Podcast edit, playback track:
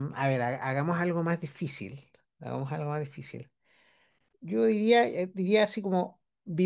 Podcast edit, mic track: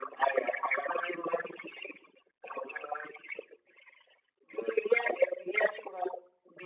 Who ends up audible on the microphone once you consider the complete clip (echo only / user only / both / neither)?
echo only